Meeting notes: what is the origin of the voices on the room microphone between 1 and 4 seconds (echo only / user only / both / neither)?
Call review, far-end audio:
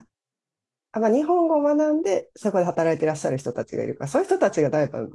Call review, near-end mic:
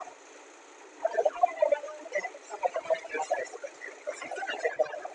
echo only